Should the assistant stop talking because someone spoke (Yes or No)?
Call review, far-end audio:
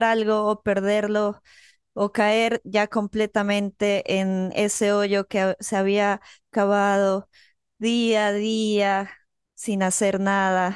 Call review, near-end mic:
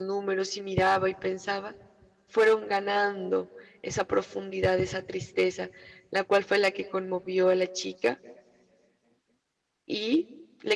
Yes